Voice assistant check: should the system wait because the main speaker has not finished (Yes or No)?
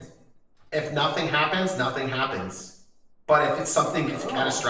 Yes